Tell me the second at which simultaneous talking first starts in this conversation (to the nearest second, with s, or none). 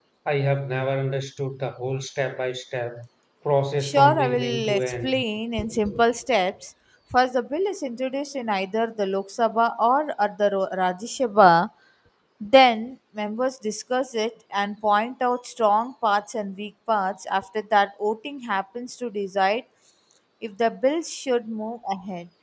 4 s